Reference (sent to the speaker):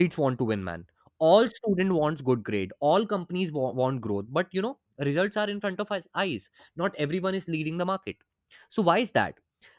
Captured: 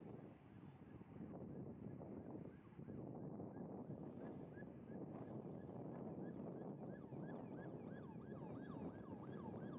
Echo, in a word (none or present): none